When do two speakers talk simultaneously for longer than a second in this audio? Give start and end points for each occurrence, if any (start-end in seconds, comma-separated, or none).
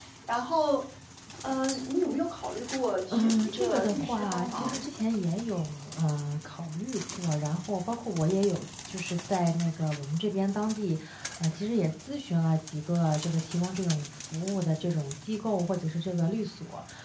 3.1-4.8